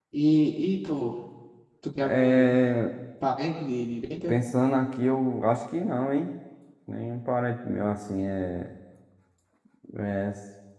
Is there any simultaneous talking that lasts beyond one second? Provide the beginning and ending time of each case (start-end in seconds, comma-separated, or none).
none